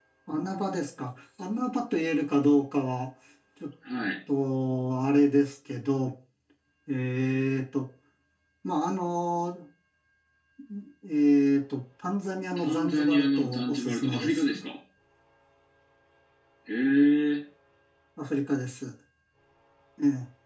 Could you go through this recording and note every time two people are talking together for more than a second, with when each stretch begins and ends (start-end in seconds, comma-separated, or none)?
12.6-14.5